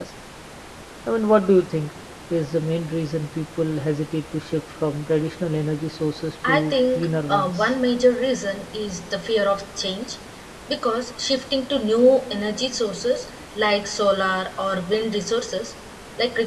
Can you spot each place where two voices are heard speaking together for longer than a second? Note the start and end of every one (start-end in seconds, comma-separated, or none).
6.5-7.7